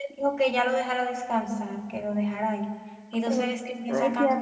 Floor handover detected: Yes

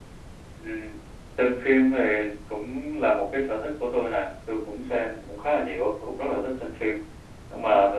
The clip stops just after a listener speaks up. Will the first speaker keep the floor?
Yes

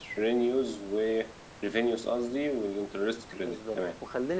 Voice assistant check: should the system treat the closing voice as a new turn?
Yes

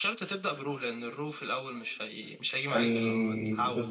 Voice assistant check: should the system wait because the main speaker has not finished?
No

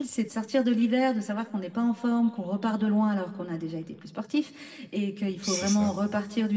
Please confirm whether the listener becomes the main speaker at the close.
No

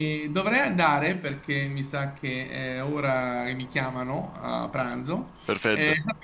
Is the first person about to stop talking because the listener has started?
No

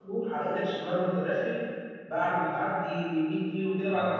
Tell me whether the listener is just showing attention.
Yes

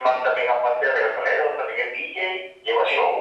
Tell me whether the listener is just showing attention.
No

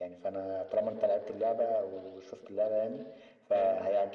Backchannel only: Yes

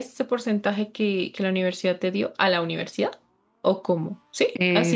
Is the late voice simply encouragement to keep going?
No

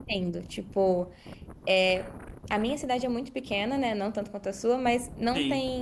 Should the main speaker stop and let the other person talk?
No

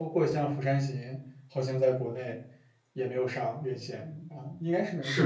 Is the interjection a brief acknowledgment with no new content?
No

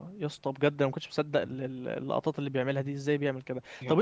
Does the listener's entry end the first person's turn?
No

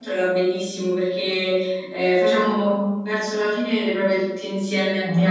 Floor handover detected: No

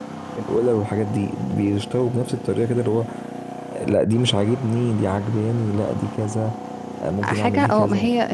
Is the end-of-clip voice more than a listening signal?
Yes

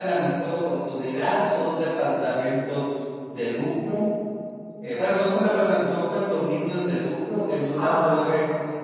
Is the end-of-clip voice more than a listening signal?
No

